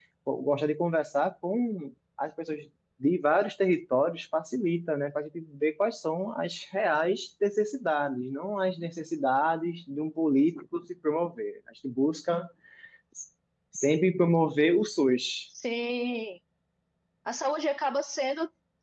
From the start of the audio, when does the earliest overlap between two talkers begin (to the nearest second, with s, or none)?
none